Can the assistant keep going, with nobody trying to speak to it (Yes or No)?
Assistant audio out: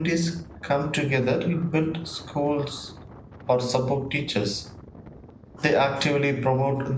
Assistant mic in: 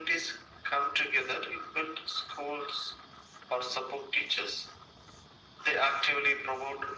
Yes